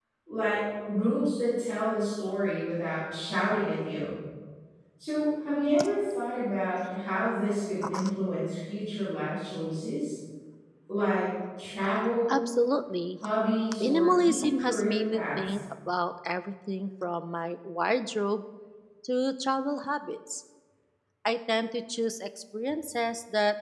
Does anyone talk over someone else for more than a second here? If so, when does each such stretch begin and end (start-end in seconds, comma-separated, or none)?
13.8-15.6